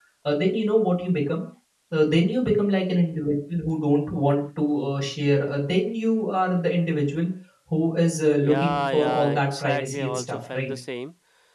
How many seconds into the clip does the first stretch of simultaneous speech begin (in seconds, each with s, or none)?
8.4 s